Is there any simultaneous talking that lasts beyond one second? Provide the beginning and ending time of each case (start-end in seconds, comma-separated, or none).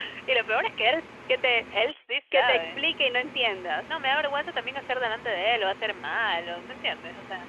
none